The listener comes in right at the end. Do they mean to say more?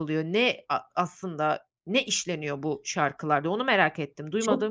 Yes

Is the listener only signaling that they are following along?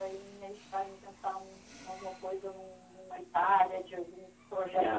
No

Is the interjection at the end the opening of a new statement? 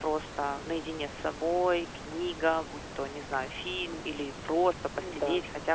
No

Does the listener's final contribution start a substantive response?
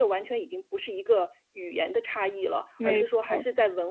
No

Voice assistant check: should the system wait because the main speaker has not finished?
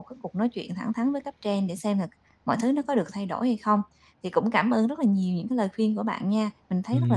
No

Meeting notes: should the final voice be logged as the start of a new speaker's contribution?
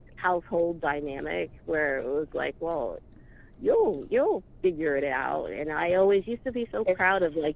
No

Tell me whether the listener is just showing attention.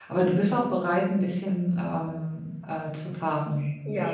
No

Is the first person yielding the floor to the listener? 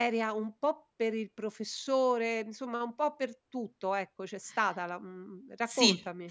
Yes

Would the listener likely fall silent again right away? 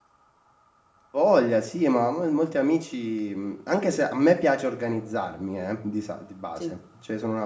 Yes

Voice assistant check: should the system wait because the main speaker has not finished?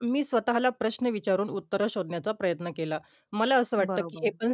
Yes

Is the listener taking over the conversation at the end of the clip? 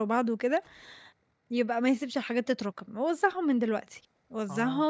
Yes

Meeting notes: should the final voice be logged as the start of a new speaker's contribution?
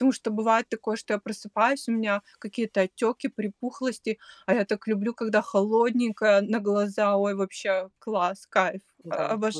Yes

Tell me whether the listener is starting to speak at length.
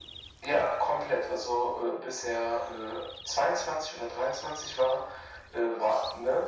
No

